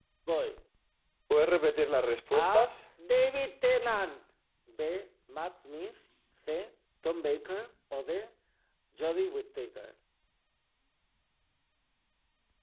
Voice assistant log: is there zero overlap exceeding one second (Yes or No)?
Yes